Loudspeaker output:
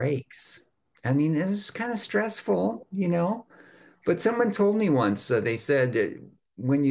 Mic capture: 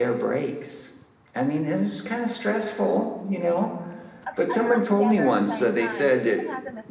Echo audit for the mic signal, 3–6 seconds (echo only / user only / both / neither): both